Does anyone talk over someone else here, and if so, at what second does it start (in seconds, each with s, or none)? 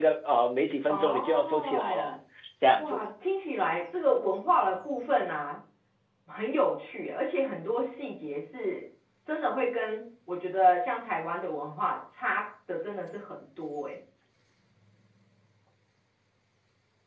0.9 s